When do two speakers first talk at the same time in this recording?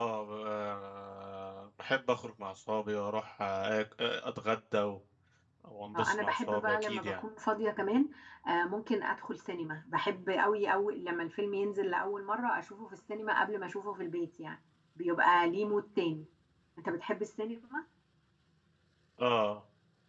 6 s

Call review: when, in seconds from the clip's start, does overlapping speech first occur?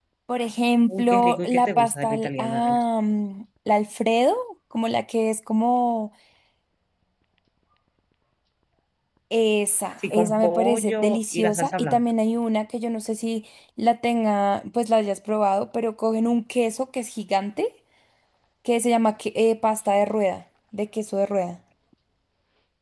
1 s

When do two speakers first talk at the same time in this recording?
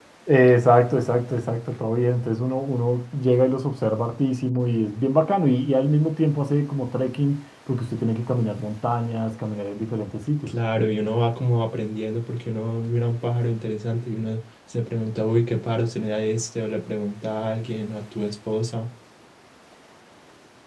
none

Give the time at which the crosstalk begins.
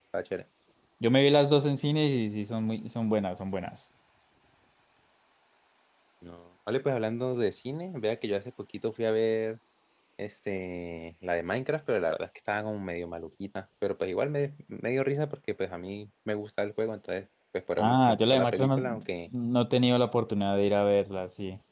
18 s

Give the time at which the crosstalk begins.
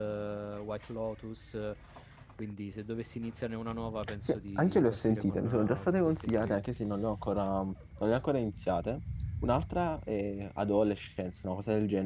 4 s

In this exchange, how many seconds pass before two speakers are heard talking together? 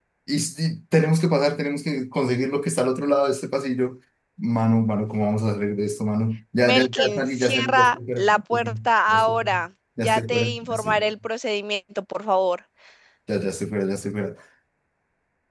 7 s

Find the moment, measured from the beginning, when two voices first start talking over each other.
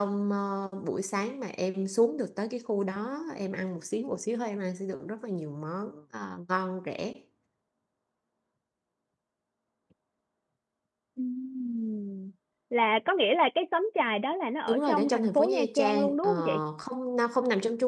15 s

